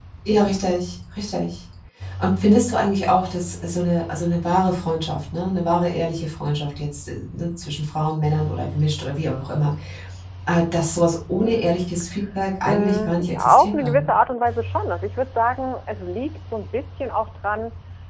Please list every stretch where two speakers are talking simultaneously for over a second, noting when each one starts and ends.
12.7-14.1

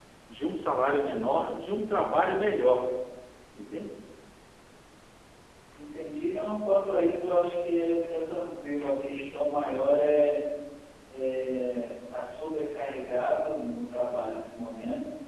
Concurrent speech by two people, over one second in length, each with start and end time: none

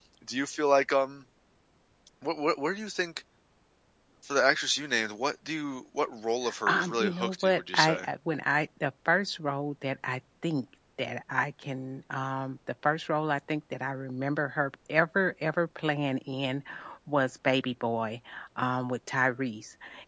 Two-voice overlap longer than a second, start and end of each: 6.7-8.1

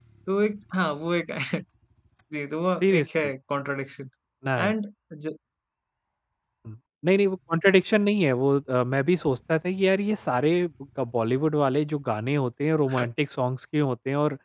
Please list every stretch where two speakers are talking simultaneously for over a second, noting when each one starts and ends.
none

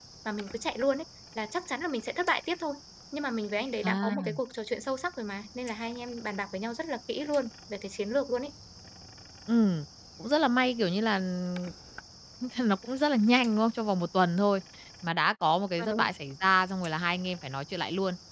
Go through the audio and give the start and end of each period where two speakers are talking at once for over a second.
none

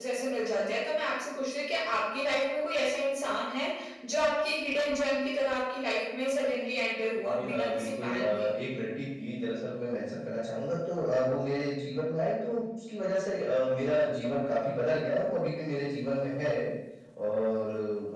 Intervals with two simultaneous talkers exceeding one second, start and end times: 7.3-8.5

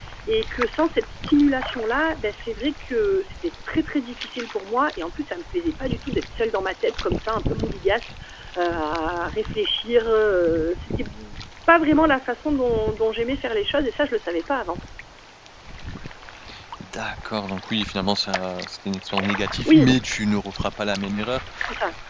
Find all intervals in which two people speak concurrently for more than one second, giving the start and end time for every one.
none

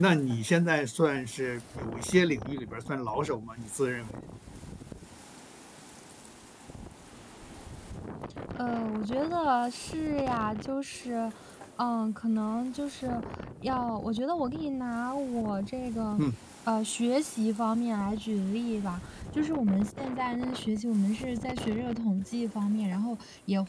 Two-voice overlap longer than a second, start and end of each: none

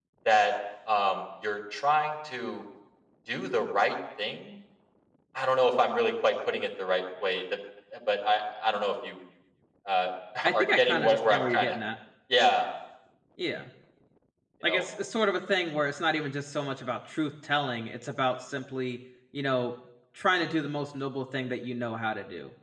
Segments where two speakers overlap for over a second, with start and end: 10.5-11.7

